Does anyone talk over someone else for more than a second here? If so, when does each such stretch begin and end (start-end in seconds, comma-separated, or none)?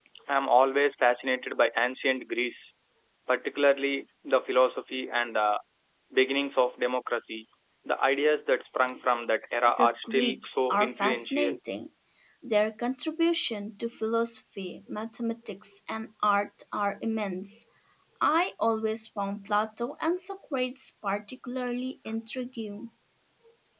9.7-11.6